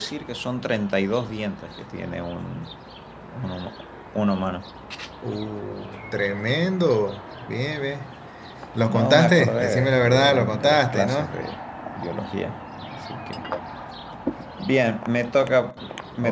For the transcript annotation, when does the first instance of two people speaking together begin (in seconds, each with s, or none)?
8.9 s